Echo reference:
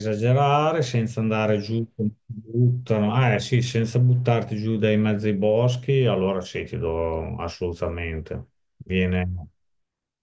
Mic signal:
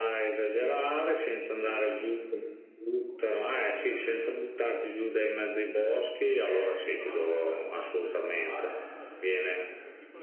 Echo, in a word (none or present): present